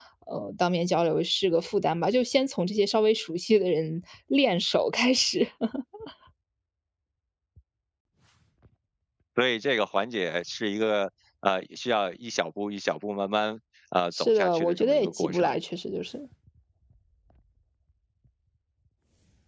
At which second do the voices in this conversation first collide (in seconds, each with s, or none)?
14.1 s